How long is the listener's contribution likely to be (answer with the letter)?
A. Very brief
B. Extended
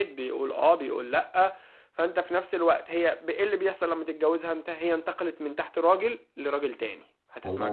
A